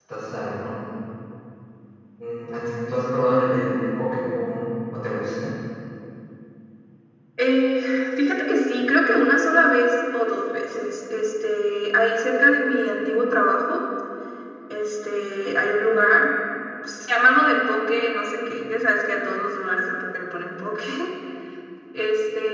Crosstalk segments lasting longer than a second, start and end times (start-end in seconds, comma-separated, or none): none